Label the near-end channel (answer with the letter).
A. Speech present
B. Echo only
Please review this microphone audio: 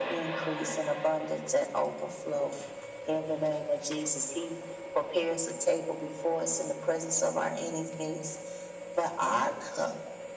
B